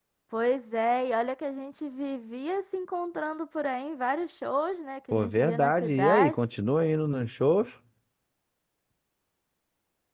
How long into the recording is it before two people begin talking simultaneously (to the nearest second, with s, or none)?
5 s